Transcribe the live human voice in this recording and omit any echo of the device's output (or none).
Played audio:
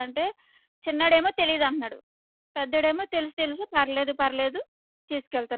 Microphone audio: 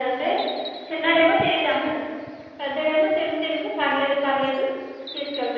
none